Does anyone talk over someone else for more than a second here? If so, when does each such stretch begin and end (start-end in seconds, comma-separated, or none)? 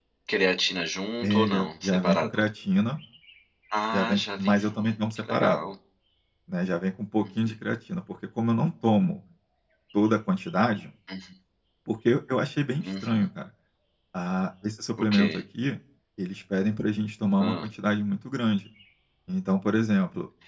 1.2-2.4, 3.9-5.6